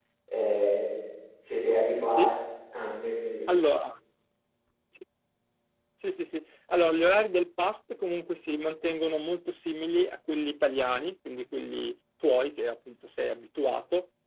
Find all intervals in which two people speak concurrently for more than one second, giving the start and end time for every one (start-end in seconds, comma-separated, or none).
none